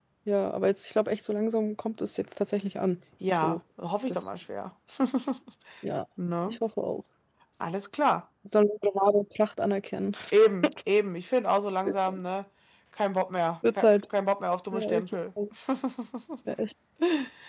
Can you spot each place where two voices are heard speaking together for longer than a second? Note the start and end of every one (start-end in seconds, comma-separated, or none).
none